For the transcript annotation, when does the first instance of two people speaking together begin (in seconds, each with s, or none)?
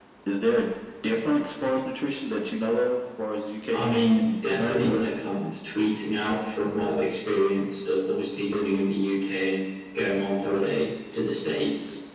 3.7 s